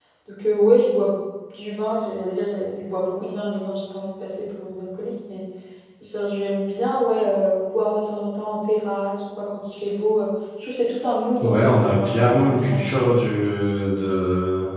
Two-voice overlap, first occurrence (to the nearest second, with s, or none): 11 s